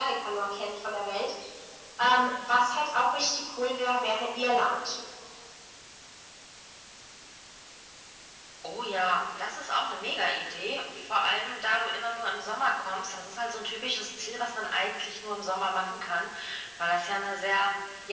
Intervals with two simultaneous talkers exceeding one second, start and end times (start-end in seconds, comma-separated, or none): none